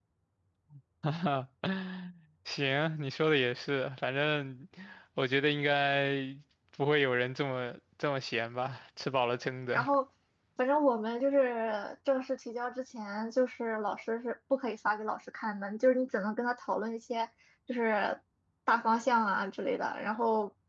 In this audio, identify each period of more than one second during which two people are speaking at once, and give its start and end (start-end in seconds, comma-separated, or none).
none